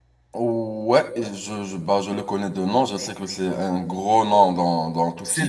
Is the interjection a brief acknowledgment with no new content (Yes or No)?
No